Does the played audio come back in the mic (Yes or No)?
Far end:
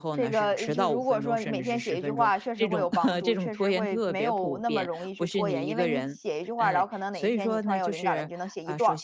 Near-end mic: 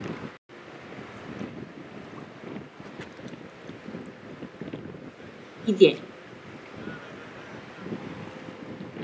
No